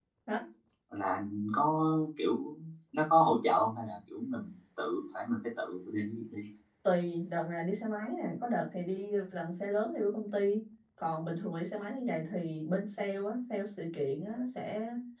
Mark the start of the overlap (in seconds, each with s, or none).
none